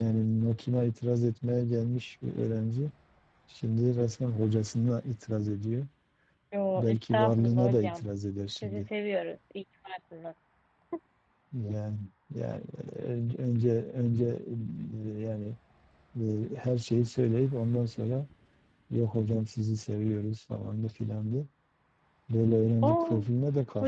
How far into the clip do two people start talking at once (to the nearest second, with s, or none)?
7 s